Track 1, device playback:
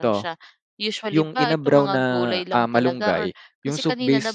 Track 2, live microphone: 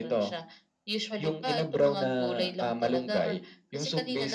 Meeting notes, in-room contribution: none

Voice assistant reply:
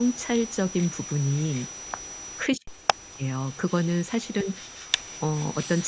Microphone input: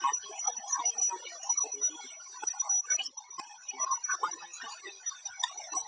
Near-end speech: none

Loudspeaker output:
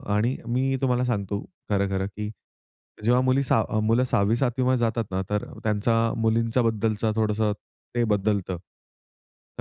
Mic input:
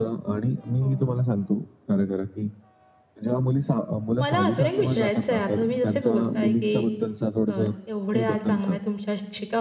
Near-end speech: present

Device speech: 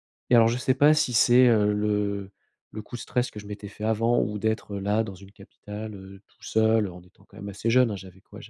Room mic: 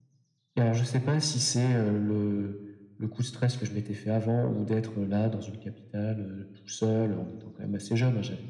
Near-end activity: none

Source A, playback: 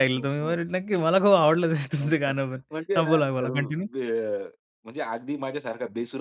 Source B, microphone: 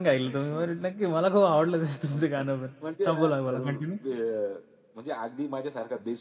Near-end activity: none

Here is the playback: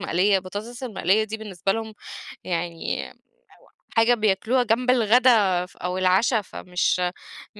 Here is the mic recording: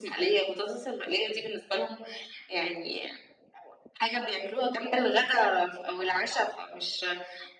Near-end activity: present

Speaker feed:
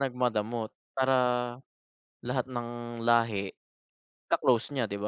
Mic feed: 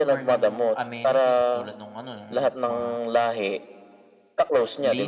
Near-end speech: present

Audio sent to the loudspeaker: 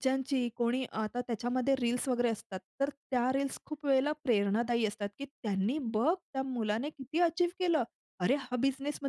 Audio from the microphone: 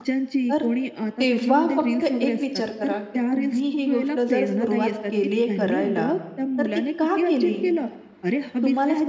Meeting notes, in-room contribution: present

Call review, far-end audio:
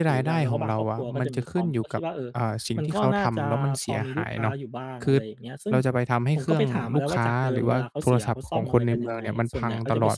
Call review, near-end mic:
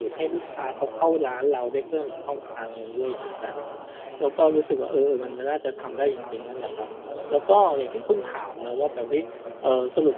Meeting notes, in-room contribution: present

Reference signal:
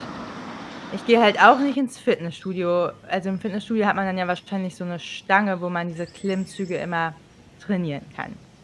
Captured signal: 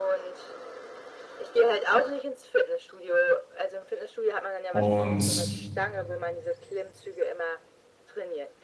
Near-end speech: present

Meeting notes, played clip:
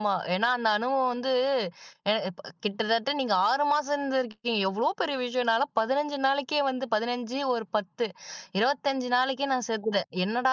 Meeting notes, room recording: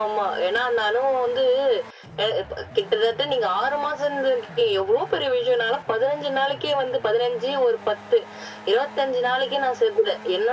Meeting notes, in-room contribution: none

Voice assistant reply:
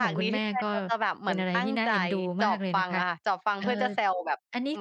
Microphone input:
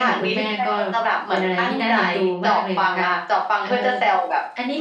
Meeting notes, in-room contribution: none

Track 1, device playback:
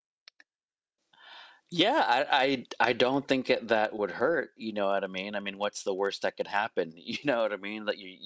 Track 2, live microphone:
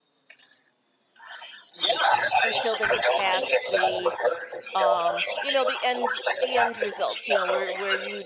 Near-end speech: present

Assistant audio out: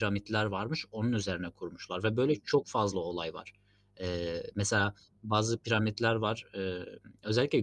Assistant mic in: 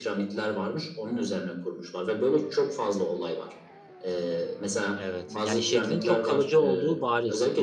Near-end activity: present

